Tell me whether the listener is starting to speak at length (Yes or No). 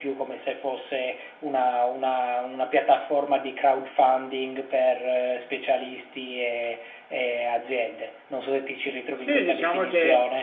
Yes